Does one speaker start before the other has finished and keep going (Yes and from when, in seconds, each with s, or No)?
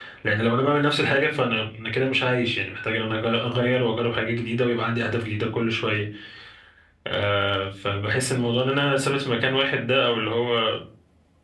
No